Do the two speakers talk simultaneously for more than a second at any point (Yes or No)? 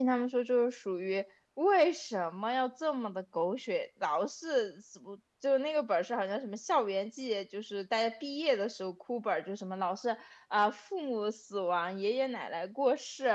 No